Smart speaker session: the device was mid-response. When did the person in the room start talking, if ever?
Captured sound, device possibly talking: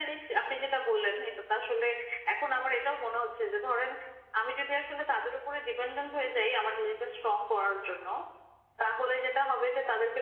none

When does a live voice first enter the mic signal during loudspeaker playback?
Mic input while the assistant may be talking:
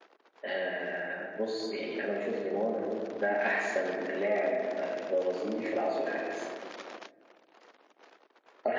none

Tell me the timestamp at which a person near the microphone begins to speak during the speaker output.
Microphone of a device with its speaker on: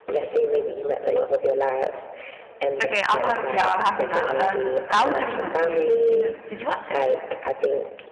2.8 s

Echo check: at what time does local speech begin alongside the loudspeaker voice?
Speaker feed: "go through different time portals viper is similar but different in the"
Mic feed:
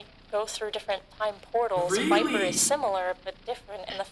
1.8 s

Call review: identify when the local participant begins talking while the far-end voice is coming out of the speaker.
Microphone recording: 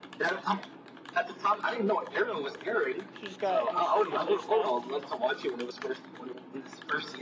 3.1 s

